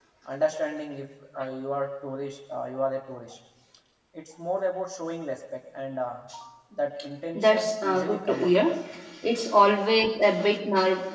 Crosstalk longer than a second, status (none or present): present